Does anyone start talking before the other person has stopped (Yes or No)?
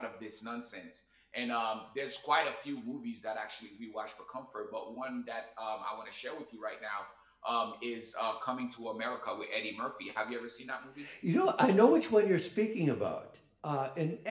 No